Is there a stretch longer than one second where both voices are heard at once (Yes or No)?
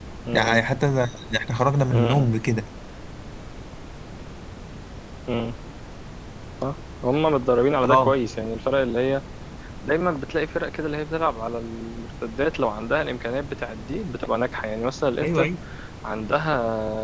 No